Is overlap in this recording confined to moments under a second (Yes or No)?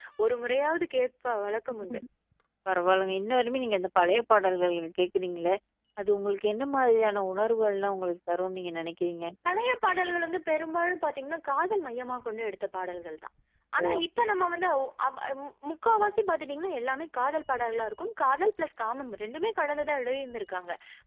Yes